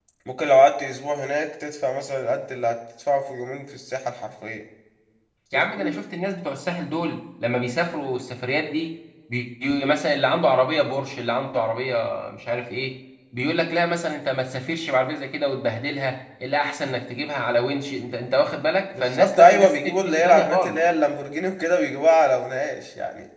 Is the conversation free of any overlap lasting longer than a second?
No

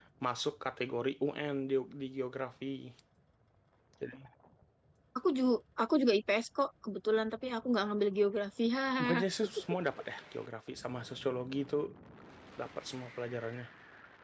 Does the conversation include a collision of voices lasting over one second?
No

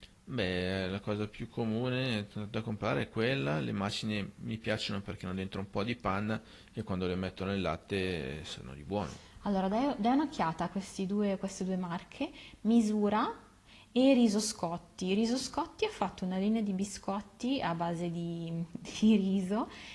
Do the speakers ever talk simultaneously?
No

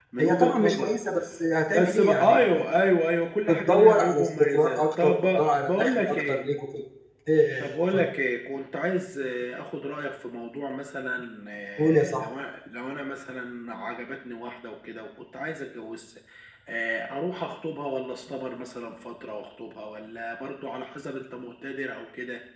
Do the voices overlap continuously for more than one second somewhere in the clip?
Yes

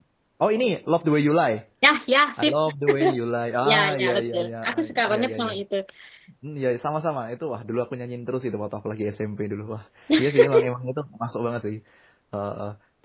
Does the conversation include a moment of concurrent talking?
Yes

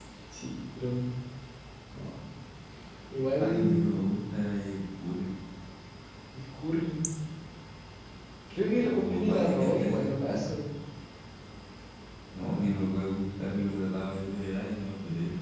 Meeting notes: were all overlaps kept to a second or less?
No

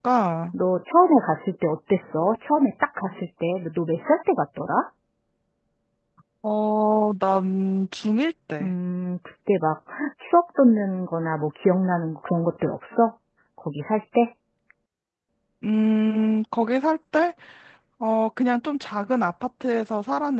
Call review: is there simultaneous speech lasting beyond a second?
No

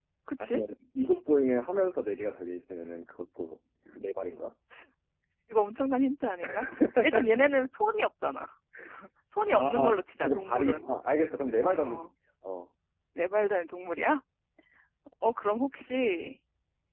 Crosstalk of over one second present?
Yes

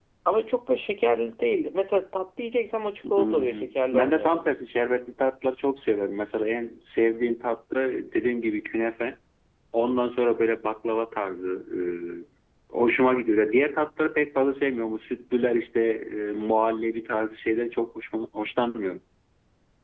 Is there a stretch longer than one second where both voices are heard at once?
Yes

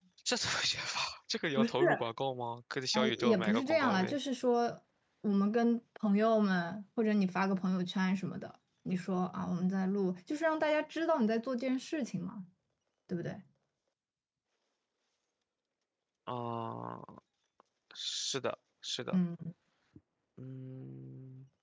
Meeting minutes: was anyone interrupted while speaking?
Yes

